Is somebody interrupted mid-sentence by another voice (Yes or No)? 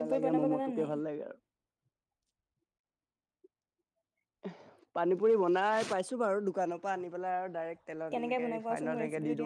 Yes